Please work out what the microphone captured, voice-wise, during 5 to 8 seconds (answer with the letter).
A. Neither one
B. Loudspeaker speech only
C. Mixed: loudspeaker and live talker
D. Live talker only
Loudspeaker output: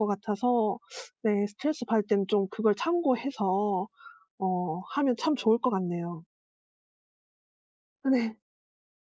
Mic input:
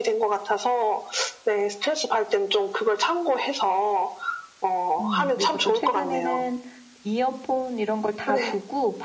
C